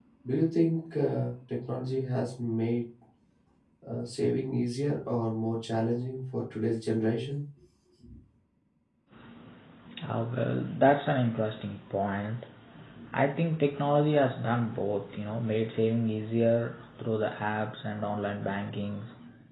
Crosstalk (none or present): none